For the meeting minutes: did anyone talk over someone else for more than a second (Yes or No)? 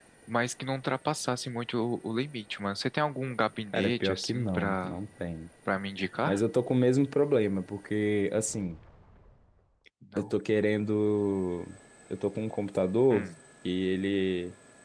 Yes